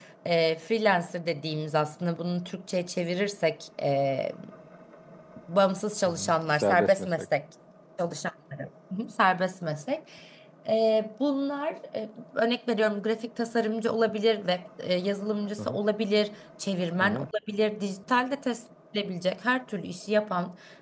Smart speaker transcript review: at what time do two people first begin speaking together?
6.0 s

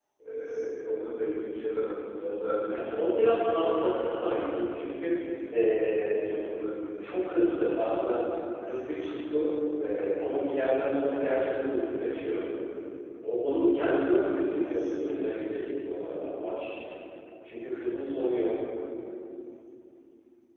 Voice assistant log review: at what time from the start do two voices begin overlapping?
2.7 s

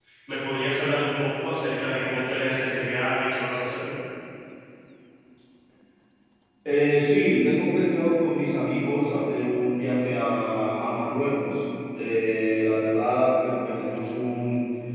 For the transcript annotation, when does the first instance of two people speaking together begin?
none

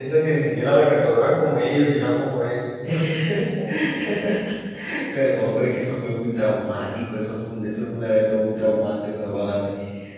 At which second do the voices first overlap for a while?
none

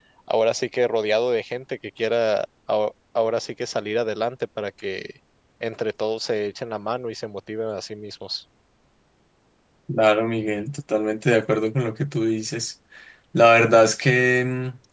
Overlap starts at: none

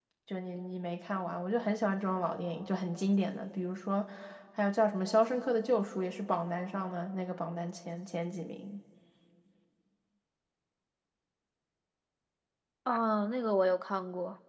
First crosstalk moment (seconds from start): none

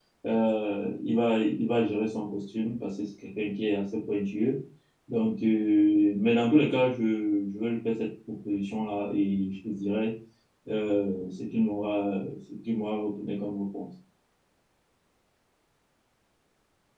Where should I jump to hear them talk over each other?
none

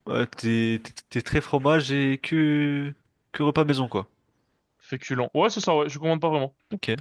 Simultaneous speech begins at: none

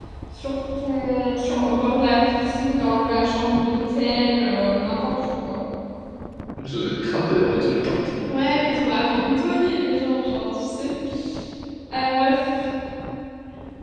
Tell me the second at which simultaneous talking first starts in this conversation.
none

